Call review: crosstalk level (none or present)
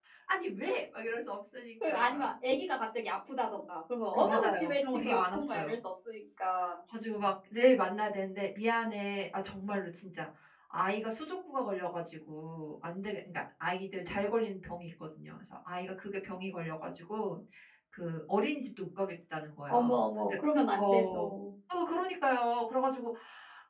present